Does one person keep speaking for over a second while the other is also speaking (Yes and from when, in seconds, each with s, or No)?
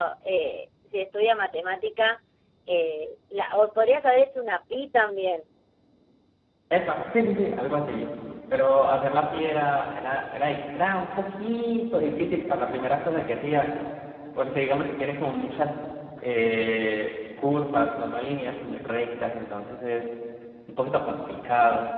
No